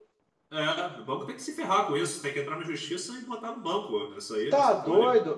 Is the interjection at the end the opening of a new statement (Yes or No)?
Yes